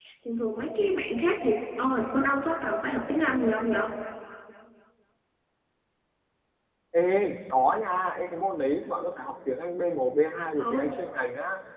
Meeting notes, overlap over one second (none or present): none